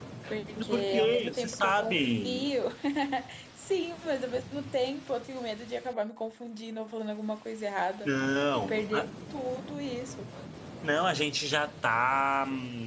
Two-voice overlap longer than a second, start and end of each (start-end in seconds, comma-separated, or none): 0.7-2.5